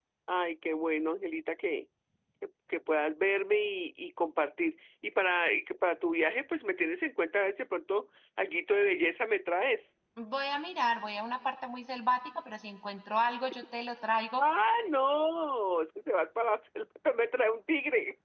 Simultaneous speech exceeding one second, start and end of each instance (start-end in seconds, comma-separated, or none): none